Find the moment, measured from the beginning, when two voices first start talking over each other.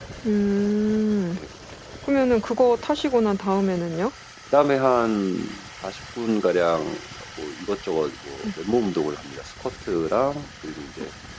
none

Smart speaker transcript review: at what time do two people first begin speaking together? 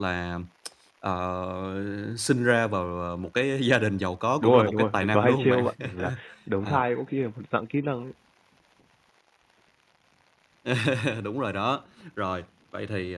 4.4 s

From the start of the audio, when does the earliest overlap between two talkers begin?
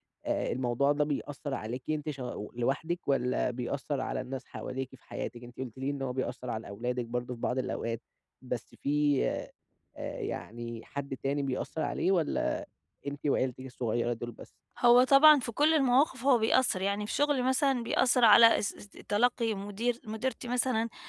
none

